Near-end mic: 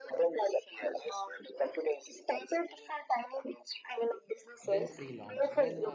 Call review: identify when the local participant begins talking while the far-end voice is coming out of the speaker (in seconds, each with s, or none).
4.6 s